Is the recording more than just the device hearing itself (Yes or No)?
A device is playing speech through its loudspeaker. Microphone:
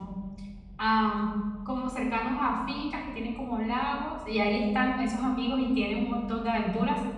Yes